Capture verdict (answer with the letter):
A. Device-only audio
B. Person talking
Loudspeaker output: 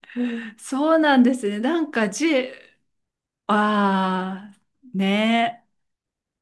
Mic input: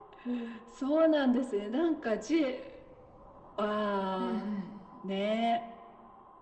B